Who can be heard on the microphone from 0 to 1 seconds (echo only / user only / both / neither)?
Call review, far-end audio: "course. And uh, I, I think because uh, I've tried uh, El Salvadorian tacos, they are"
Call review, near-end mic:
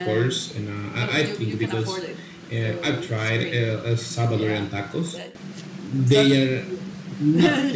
both